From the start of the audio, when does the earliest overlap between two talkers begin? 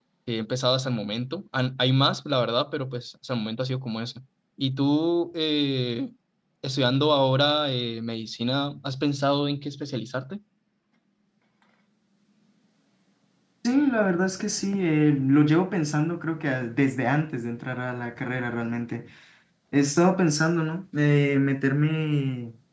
none

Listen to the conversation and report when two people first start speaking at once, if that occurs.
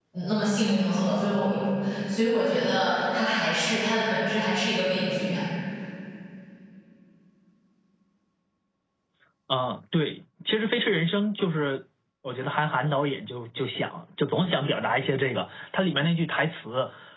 none

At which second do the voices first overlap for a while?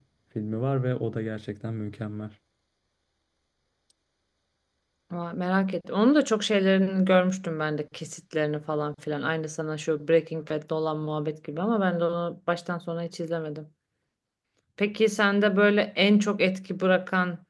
none

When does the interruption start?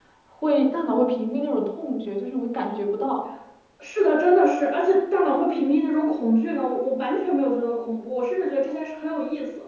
none

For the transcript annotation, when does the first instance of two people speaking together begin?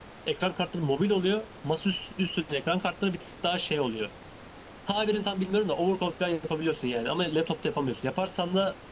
none

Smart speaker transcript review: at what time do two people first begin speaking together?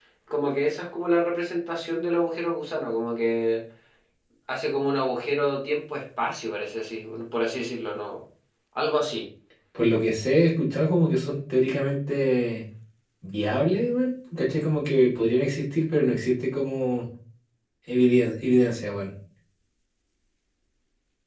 none

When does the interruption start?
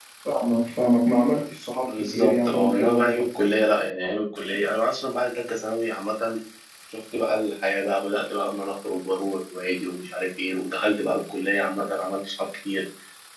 1.9 s

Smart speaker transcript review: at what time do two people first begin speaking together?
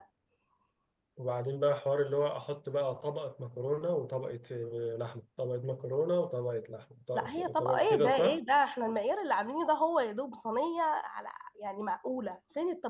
7.1 s

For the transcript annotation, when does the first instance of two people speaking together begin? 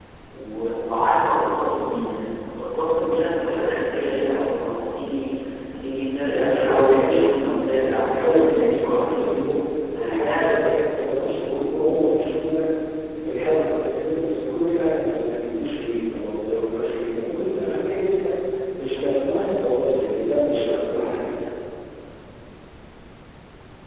6.2 s

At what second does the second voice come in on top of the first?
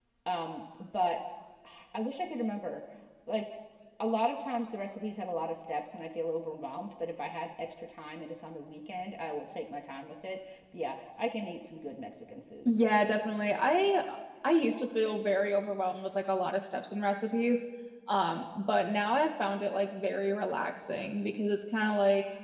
none

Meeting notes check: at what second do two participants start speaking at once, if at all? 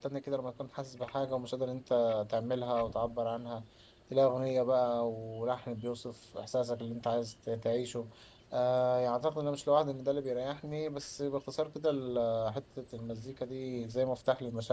none

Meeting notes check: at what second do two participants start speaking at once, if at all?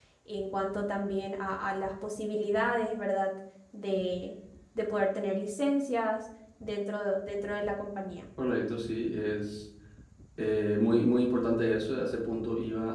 none

